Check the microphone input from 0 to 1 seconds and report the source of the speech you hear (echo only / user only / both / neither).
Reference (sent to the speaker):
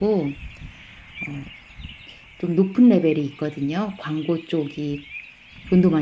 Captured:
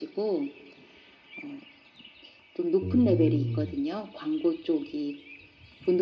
echo only